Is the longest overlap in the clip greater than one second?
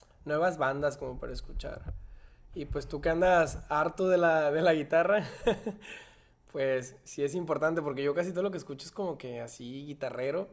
No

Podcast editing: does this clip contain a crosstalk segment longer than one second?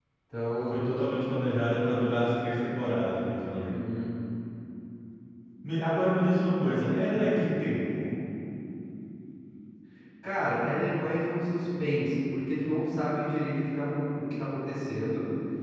No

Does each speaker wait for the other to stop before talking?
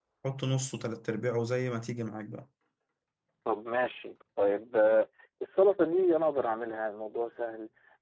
Yes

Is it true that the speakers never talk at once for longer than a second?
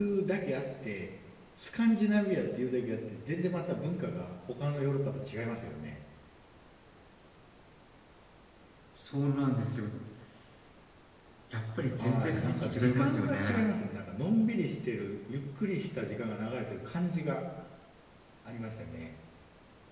No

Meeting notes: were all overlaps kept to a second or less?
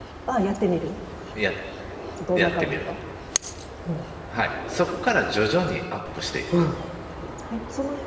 Yes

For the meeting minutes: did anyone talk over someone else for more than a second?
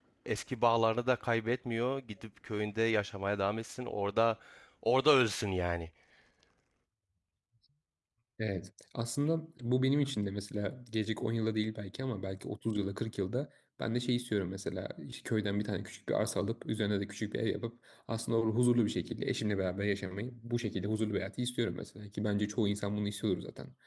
No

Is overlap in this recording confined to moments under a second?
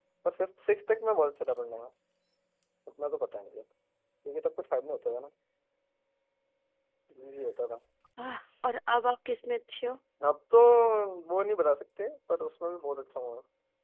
Yes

